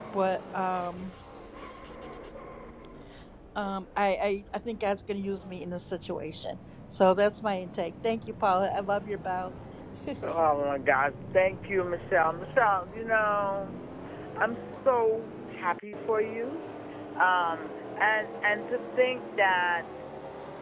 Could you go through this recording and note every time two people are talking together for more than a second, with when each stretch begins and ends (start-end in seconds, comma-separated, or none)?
none